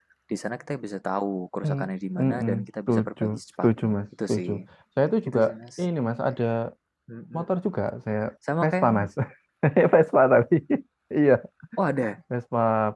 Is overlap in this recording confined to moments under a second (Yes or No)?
No